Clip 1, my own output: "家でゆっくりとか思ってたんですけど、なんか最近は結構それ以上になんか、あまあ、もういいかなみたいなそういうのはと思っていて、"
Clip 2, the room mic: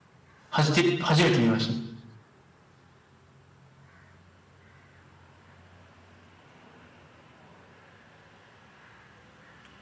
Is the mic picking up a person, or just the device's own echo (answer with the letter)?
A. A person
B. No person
A